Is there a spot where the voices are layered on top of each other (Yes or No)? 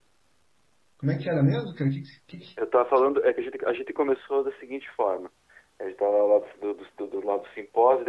No